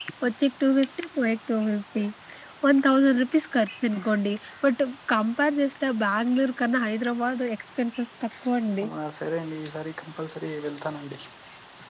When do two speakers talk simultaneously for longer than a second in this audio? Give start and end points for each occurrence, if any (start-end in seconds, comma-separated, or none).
none